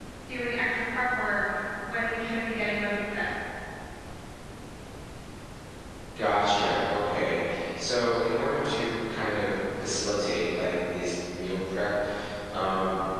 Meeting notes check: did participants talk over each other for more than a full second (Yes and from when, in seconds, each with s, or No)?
No